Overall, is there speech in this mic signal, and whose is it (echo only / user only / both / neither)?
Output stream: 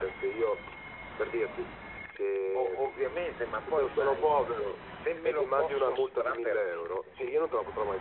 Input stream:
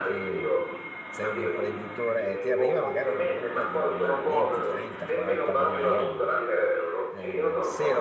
both